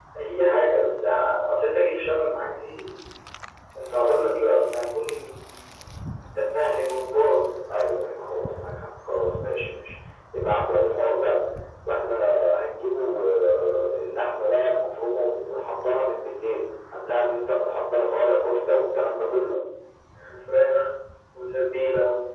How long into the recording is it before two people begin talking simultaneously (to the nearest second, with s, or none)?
none